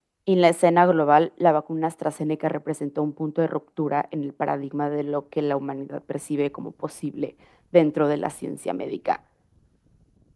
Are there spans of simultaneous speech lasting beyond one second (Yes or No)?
No